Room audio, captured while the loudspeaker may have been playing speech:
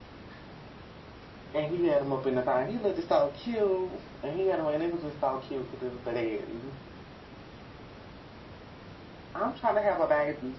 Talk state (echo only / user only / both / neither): echo only